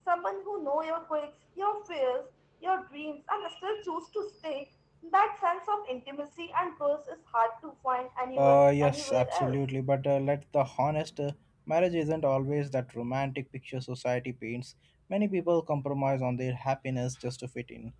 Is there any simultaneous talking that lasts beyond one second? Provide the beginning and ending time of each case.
8.4-9.6

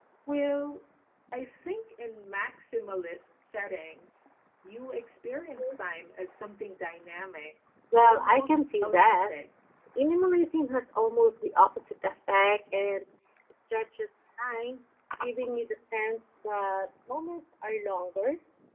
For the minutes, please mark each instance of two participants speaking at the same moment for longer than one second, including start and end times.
8.0-9.3

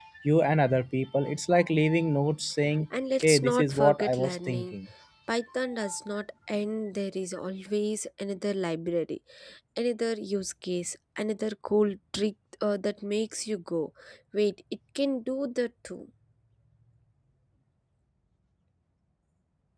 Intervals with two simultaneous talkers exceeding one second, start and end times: 3.2-4.7

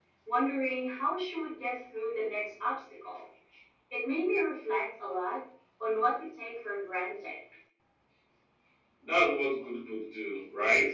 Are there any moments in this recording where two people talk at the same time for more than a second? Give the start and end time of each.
none

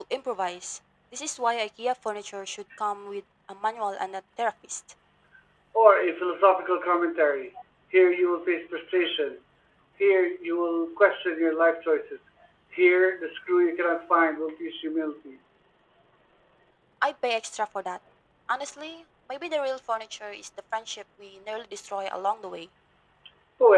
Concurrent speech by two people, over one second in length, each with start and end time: none

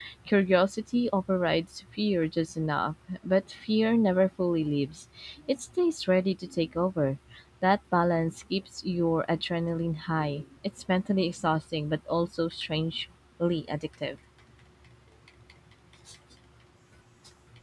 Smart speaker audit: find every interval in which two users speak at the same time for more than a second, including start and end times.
none

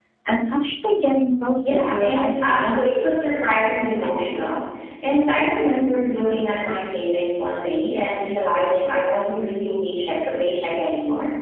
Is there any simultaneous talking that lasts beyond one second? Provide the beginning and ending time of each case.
1.6-2.9

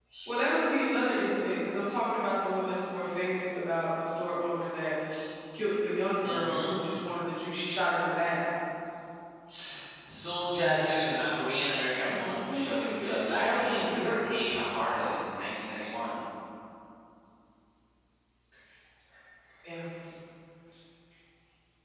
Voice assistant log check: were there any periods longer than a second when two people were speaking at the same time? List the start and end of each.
12.1-14.1

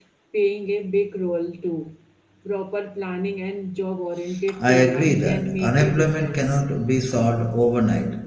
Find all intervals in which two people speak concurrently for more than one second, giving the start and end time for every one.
4.6-6.6

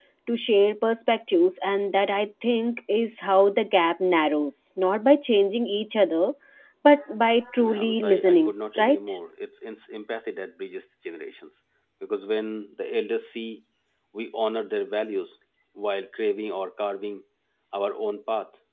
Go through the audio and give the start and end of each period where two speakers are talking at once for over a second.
7.6-9.0

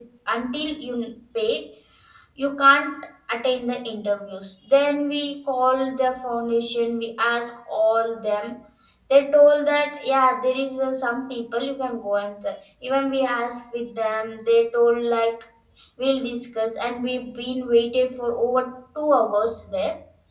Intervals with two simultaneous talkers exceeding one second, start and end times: none

